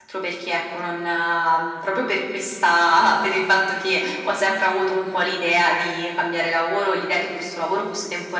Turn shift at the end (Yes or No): No